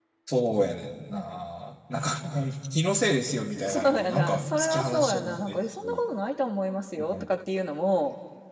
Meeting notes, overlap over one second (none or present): present